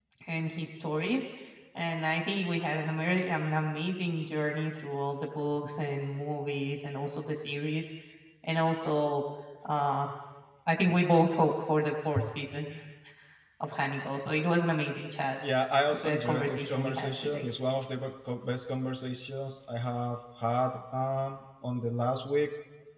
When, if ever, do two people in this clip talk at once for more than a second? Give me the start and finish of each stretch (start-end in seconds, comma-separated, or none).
15.9-17.5